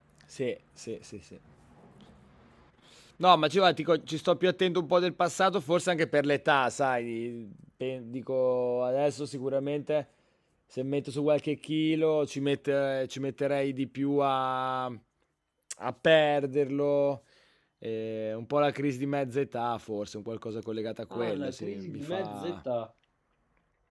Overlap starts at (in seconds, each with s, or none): 21.1 s